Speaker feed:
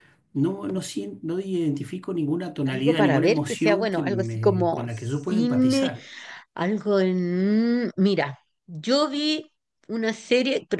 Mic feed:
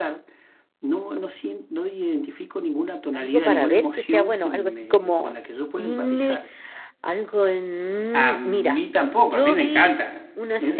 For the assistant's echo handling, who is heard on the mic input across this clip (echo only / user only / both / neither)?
both